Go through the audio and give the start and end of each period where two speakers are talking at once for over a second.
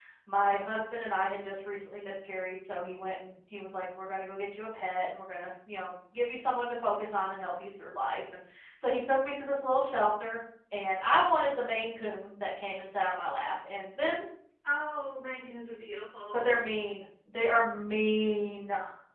none

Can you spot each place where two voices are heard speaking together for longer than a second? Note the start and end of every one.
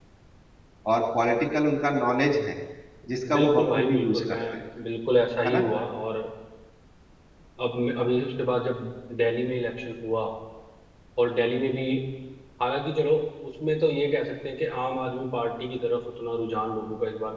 3.3-4.6

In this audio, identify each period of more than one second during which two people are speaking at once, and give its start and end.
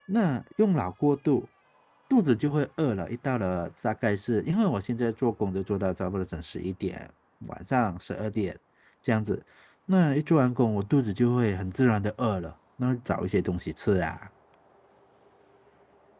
none

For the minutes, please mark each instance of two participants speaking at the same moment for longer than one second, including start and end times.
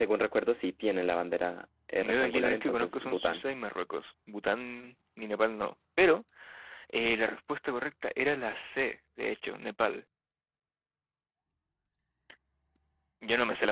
2.0-3.4

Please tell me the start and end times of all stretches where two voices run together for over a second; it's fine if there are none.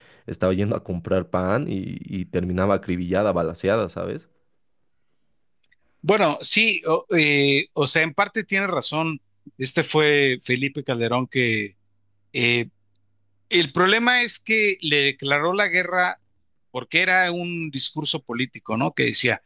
none

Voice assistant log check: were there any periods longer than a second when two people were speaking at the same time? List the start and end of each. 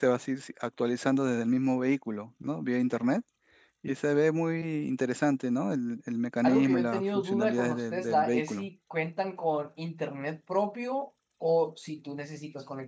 6.4-8.7

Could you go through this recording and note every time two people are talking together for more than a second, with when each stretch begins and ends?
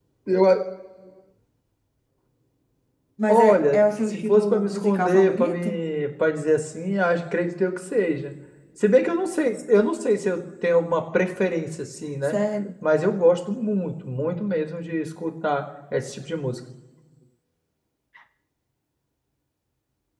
3.3-5.8

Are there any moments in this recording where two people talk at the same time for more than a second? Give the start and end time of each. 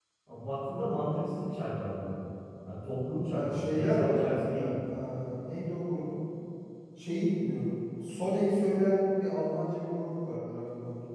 3.3-4.7

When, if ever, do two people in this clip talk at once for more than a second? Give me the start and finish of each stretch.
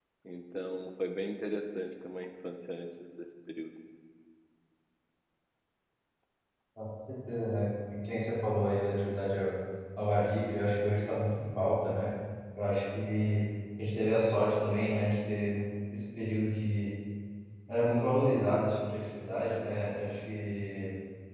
none

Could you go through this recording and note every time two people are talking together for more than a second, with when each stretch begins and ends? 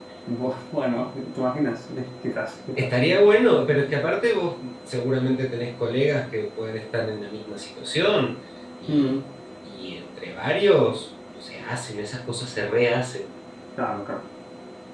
none

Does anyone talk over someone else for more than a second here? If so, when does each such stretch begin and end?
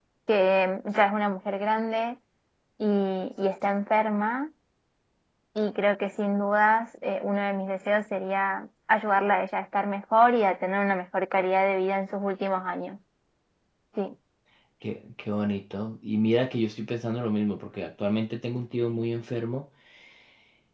none

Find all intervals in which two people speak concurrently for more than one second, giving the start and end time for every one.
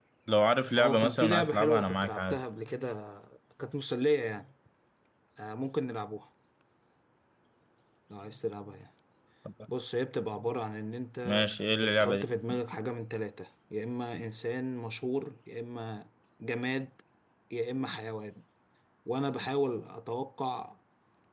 0.8-2.4

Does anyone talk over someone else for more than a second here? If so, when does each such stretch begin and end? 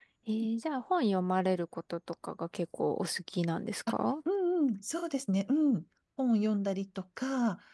none

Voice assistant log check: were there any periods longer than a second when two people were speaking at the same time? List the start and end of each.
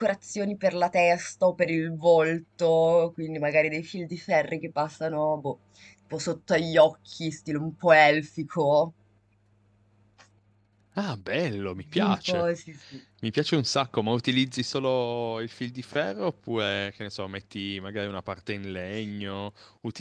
none

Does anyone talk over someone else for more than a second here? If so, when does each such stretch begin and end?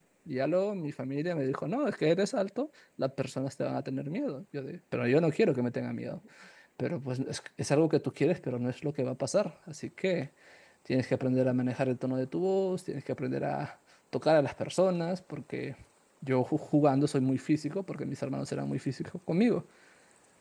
none

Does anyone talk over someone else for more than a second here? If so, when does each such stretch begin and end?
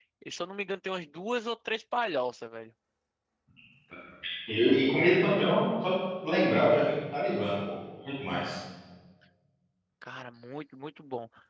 none

